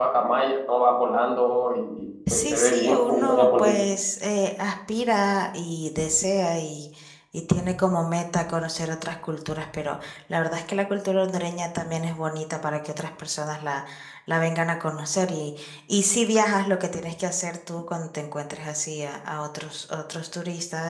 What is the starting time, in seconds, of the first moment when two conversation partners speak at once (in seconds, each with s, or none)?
2.3 s